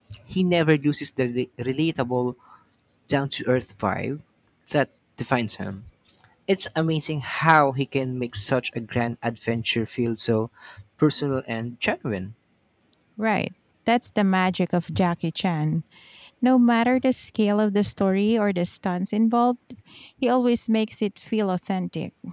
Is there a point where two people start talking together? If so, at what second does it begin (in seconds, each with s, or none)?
none